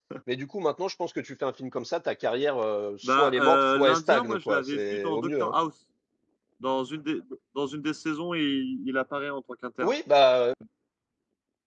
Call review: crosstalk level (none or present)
present